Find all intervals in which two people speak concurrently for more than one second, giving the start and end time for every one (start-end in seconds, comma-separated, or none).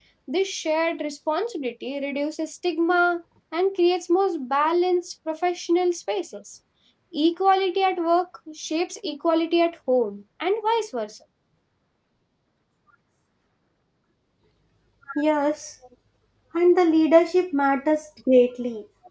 none